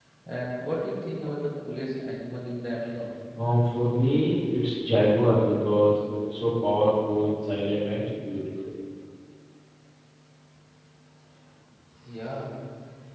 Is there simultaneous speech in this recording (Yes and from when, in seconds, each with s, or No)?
No